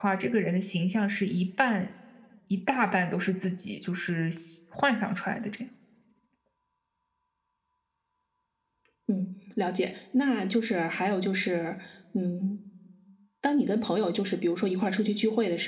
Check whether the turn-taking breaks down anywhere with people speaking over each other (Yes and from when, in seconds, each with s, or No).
No